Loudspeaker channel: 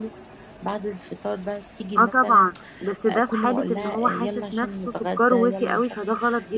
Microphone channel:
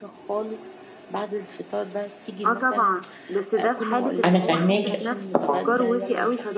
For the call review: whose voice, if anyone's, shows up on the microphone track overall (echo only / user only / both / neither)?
both